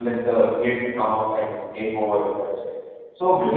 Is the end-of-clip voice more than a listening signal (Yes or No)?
No